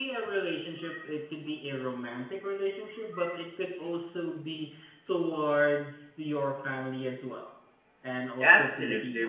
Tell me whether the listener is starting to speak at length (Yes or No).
Yes